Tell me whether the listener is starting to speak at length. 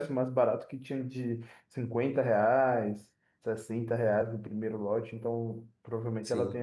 Yes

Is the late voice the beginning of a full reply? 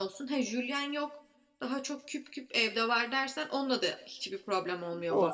Yes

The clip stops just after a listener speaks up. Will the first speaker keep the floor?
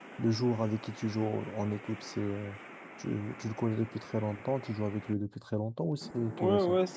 No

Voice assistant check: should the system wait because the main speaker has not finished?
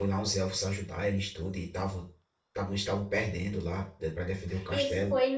No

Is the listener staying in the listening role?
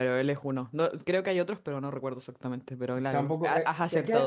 No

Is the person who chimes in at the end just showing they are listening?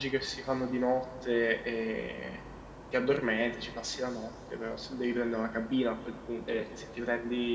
Yes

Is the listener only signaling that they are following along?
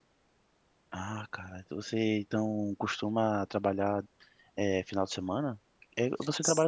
Yes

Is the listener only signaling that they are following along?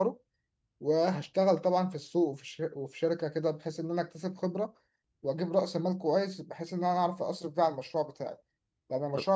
Yes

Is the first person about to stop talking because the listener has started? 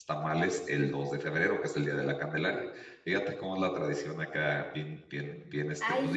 Yes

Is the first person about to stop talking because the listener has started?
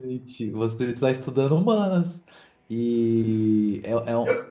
No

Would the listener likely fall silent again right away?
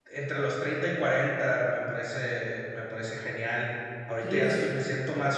Yes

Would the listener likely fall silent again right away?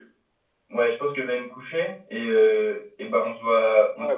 No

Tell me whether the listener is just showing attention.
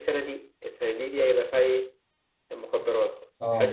Yes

